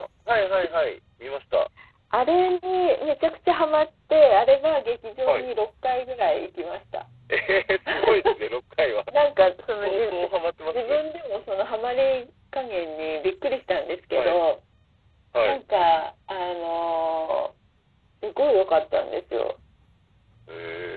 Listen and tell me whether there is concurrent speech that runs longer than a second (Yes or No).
No